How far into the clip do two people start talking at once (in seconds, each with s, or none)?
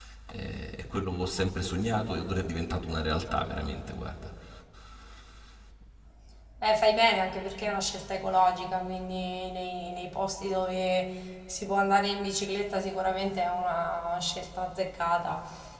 none